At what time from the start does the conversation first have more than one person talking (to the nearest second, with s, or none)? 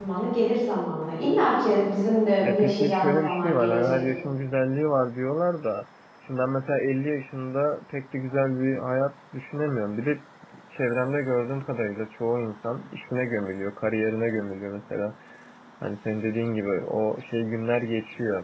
2 s